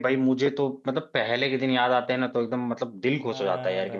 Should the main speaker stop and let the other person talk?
Yes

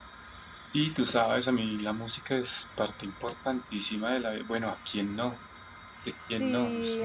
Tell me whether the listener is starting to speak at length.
Yes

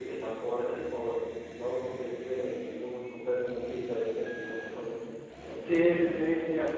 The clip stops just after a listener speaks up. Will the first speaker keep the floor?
No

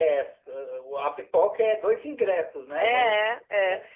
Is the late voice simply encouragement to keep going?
No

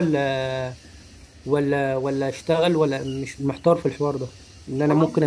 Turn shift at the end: No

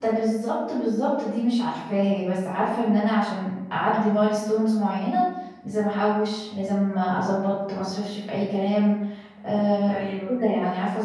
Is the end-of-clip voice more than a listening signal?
No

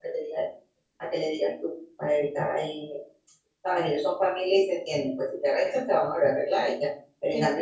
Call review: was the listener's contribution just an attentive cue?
Yes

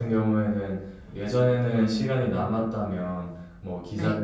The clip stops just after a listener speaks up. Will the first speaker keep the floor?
Yes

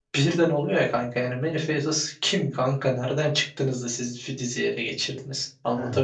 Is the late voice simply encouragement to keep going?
No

